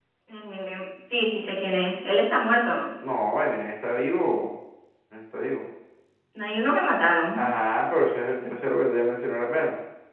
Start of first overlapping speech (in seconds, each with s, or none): none